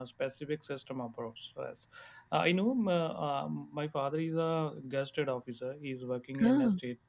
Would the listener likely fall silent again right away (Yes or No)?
Yes